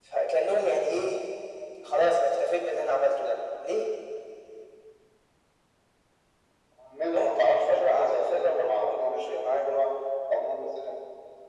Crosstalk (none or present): present